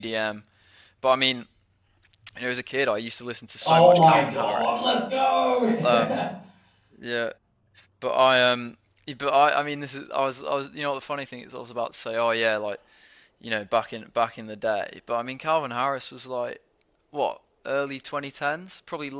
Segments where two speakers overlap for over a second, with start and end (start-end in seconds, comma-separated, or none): 3.6-4.8